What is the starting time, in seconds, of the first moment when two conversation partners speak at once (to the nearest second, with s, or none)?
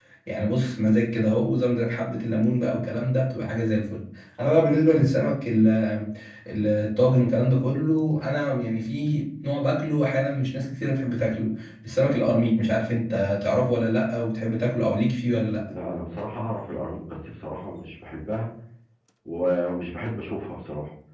none